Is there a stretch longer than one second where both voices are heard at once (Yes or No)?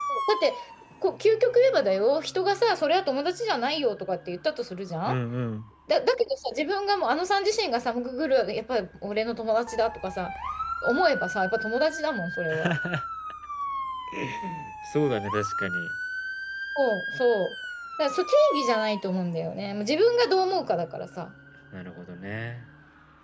No